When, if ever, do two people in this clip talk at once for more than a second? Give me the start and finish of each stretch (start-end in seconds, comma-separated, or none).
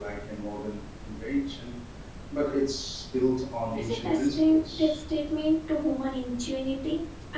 3.7-5.0